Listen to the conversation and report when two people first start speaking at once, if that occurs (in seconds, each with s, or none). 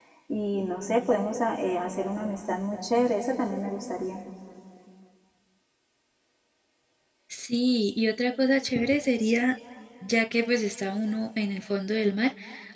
none